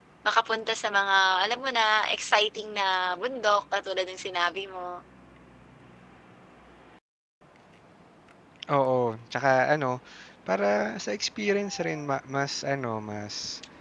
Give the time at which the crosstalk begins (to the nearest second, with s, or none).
none